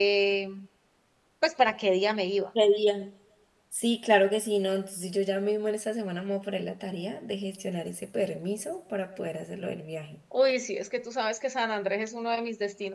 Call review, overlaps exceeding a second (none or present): none